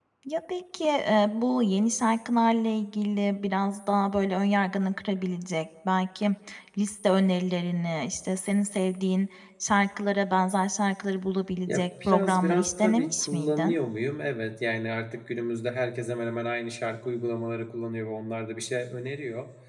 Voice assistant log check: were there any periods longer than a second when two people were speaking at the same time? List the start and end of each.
11.7-13.7

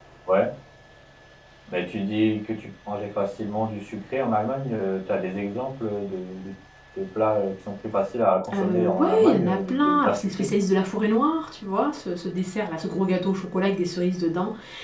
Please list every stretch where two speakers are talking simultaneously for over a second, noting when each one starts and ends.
8.6-10.5

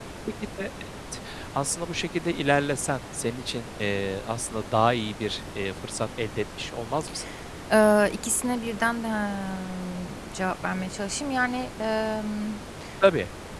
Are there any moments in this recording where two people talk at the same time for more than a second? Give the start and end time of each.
none

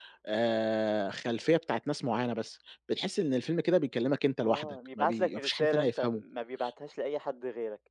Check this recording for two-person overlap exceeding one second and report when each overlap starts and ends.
4.4-6.2

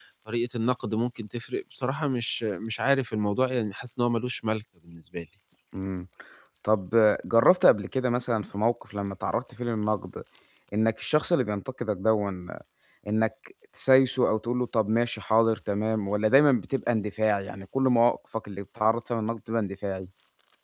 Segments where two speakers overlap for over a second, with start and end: none

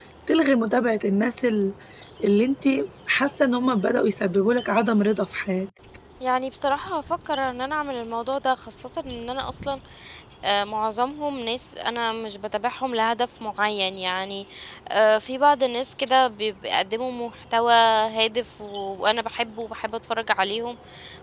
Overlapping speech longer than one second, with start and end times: none

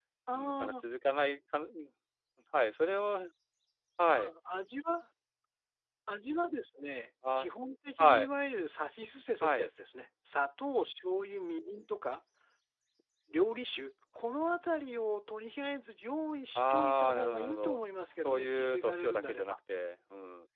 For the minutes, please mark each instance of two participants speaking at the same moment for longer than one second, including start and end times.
16.6-17.8, 18.2-19.6

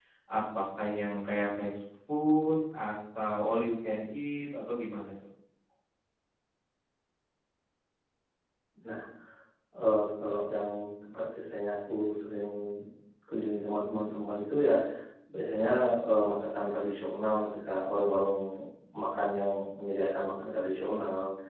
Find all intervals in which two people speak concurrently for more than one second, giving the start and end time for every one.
none

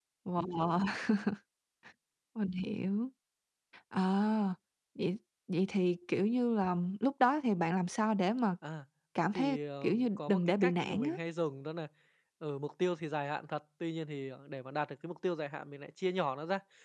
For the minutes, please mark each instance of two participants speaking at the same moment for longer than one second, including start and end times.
9.4-11.1

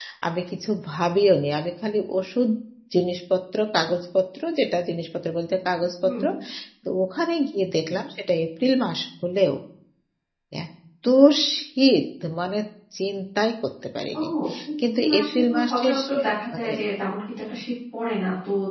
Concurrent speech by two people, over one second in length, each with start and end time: 15.0-16.7

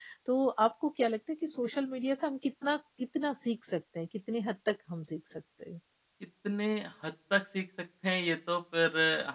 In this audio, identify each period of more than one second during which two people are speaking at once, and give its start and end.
none

